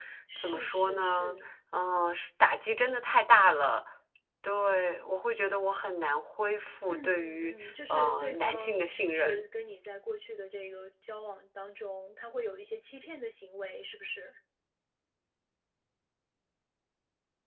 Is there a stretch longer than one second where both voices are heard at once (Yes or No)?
Yes